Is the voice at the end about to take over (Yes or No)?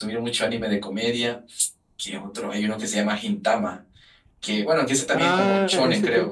Yes